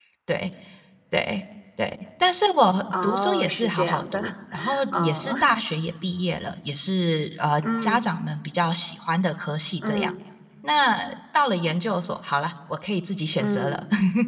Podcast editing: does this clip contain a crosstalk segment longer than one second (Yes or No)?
Yes